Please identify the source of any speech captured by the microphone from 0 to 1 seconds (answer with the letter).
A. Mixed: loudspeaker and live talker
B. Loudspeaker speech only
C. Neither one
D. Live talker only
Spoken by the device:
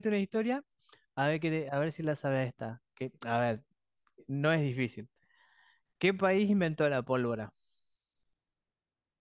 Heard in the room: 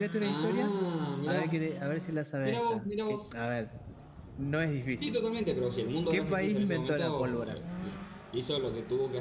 A